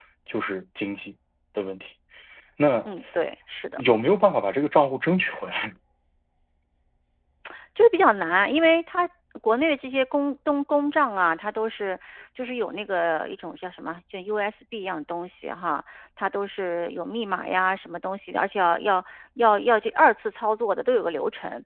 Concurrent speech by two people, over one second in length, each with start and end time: none

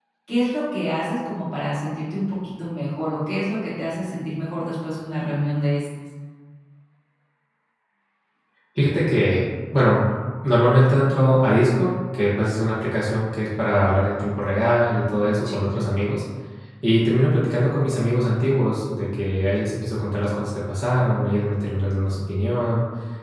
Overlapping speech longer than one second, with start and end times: none

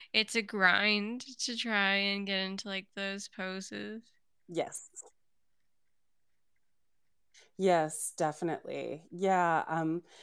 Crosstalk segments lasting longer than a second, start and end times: none

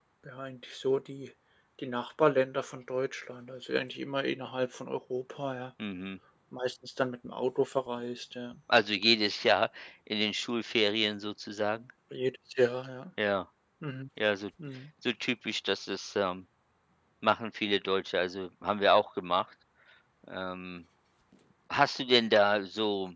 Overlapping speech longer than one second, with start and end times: none

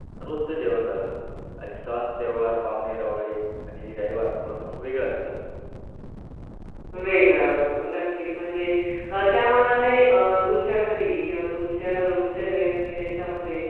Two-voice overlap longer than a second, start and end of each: none

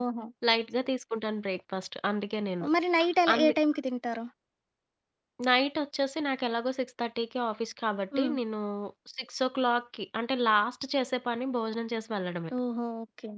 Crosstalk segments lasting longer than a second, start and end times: none

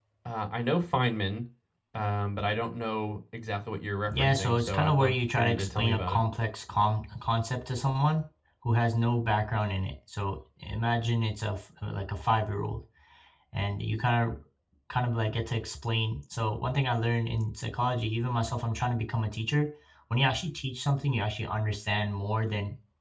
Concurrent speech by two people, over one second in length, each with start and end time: 4.1-6.2

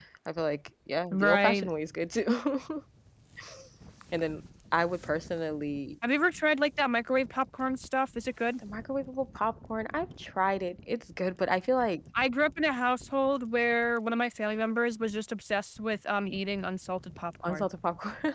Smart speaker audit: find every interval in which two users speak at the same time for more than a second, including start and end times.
none

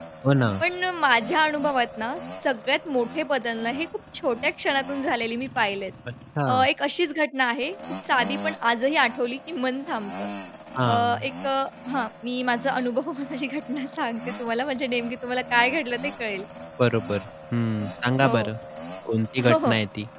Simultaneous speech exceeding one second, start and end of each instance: none

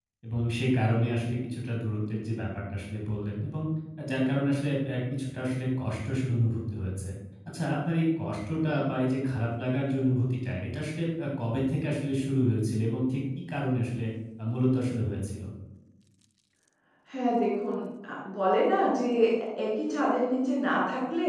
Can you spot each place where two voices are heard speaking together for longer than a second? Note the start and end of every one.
none

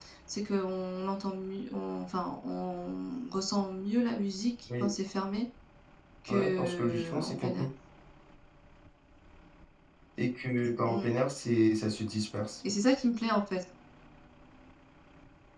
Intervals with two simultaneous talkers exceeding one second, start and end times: 6.3-7.7

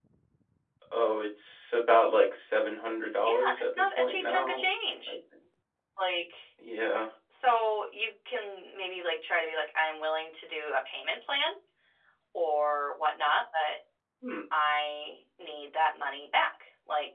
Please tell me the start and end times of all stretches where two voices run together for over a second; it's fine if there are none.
3.2-4.7

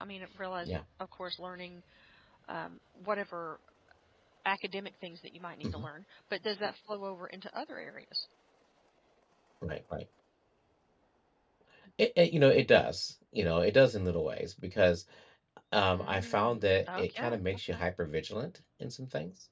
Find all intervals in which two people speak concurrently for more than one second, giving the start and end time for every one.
16.0-17.4

